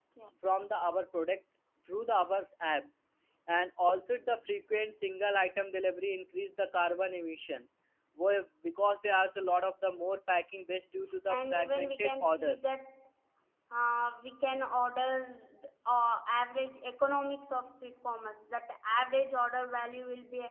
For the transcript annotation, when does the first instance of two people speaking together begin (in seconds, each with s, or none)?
11.3 s